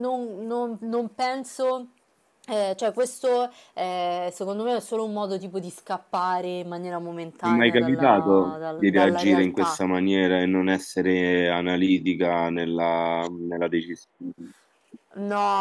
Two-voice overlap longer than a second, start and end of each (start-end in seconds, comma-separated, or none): 7.4-9.8